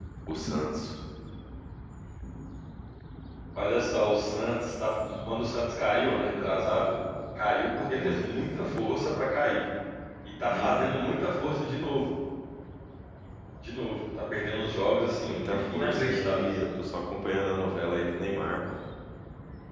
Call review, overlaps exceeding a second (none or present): present